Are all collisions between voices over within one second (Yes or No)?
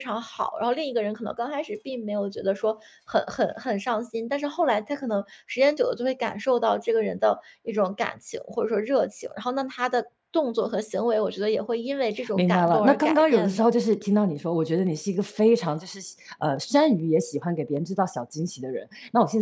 No